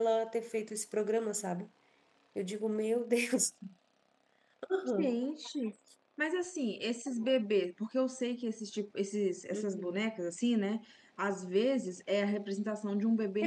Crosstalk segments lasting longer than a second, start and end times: none

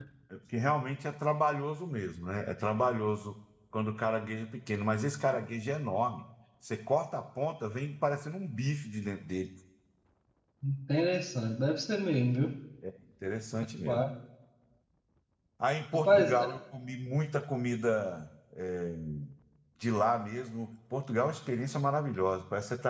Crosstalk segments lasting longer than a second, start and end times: none

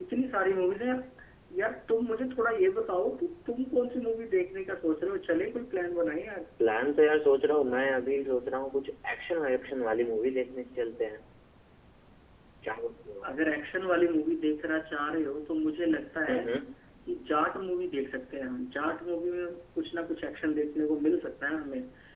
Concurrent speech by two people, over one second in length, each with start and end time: none

